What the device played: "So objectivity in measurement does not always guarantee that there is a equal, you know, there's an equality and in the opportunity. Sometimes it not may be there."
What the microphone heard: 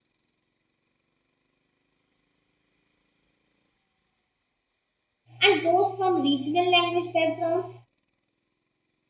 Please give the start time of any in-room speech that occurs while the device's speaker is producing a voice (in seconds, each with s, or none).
5.4 s